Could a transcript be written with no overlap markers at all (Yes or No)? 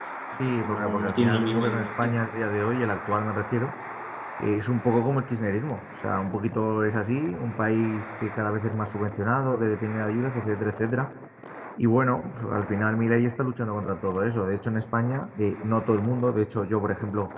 No